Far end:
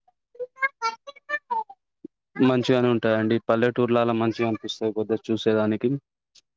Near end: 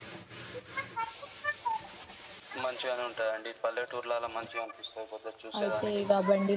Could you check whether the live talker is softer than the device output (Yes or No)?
No